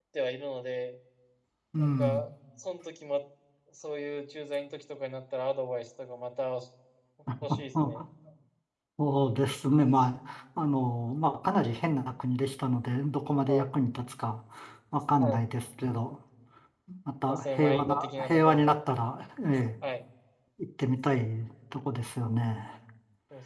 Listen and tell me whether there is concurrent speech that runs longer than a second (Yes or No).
Yes